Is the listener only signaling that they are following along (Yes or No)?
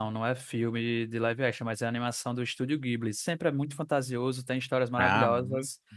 Yes